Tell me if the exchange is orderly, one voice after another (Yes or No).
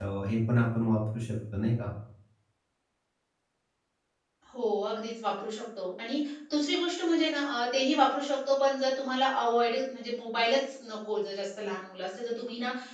Yes